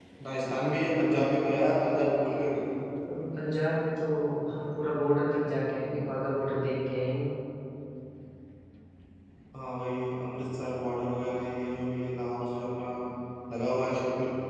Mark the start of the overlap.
none

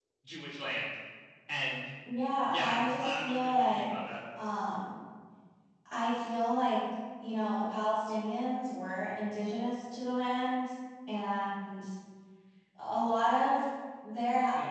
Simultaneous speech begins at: 2.5 s

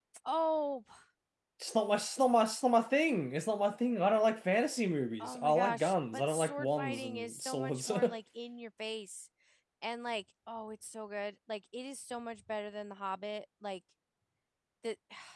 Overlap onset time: 5.2 s

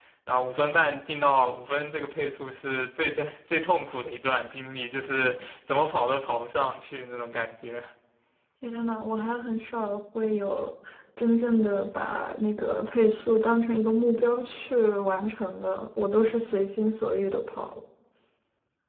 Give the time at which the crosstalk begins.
none

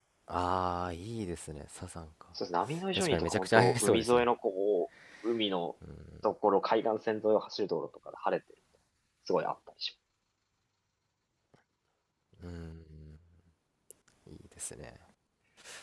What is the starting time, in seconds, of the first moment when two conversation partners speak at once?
2.9 s

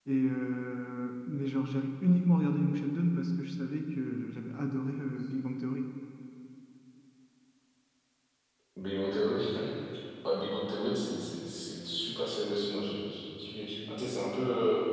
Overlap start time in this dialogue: none

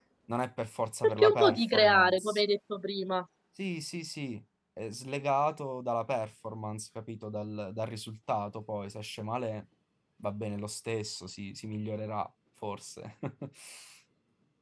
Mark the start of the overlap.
1.0 s

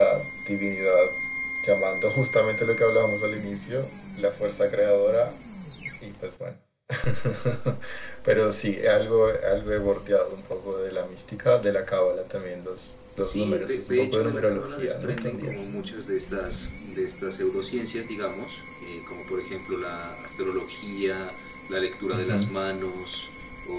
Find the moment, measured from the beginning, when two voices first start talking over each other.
13.2 s

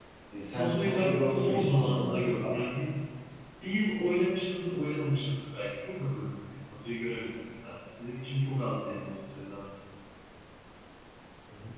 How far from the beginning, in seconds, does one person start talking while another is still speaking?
0.5 s

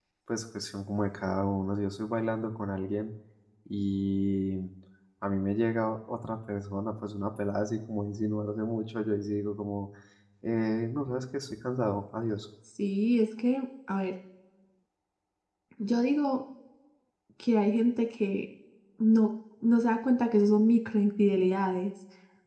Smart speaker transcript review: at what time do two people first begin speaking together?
none

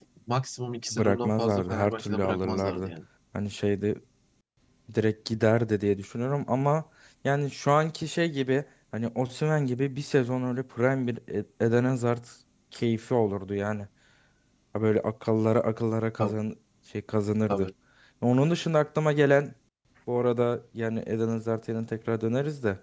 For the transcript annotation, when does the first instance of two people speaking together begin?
0.9 s

